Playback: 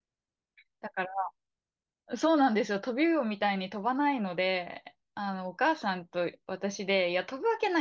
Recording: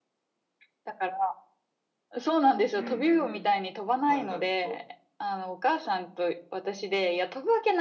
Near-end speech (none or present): present